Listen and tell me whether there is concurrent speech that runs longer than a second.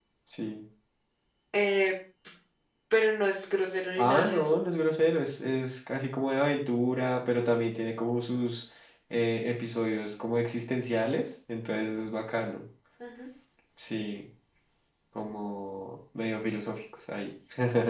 No

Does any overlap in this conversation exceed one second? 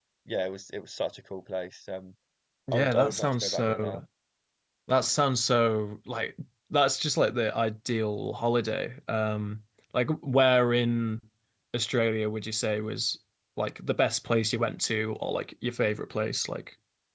Yes, from 2.7 s

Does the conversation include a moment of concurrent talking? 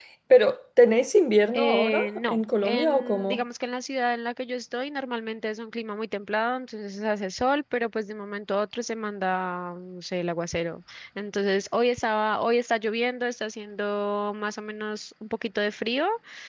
Yes, from 1.5 s

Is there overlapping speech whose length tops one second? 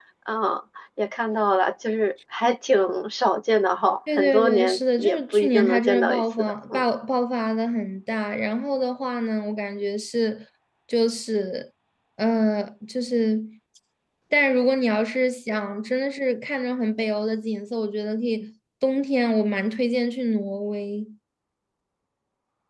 Yes, from 4.1 s

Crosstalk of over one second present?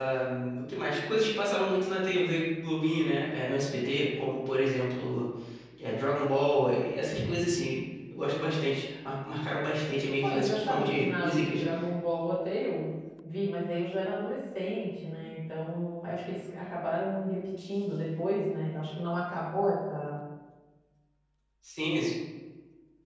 Yes, from 10.2 s

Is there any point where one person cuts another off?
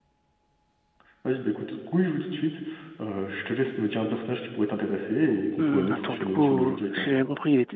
Yes, from 5.6 s

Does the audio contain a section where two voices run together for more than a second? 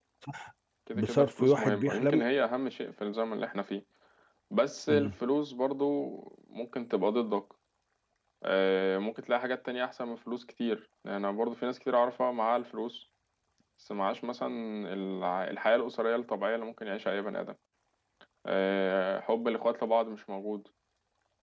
Yes, from 0.9 s

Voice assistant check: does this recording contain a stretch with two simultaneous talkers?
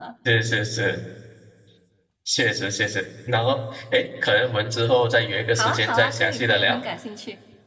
Yes, from 5.5 s

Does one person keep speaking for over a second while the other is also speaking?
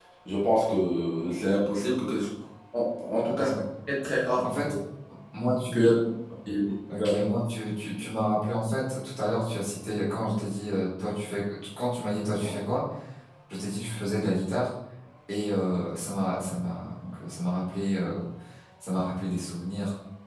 No

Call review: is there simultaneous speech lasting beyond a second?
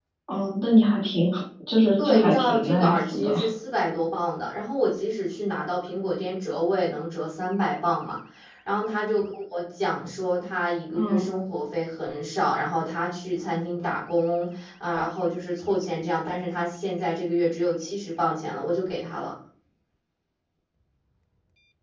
Yes, from 2.0 s

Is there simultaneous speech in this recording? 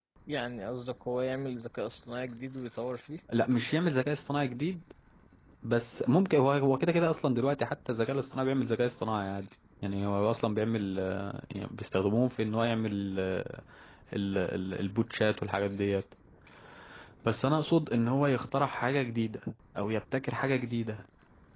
No

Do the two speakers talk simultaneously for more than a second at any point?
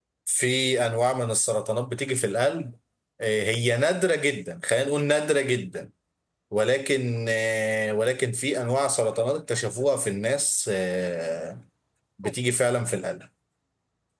No

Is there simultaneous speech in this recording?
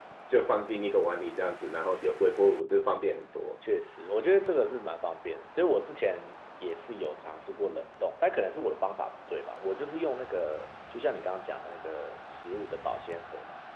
No

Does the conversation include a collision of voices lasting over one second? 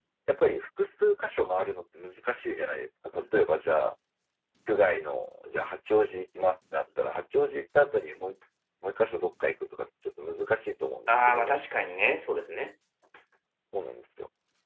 No

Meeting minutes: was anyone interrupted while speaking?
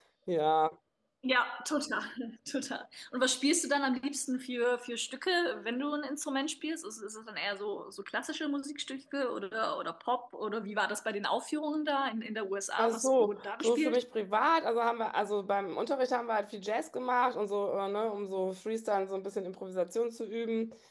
Yes, from 12.8 s

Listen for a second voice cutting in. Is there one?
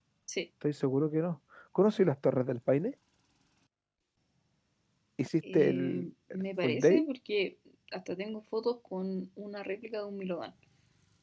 Yes, from 5.5 s

